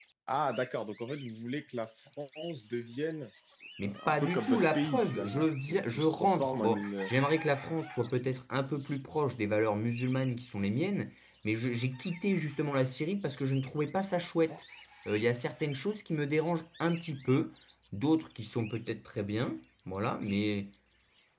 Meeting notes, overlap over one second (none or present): present